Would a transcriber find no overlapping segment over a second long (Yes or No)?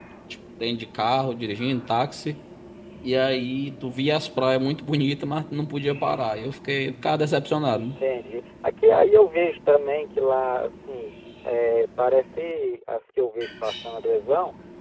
Yes